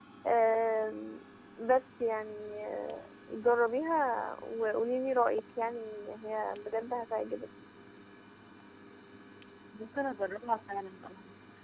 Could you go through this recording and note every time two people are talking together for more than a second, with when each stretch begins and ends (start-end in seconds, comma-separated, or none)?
none